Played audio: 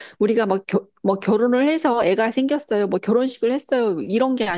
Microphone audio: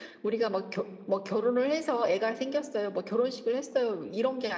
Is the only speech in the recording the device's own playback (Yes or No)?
Yes